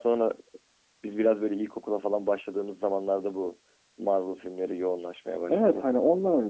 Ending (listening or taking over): taking over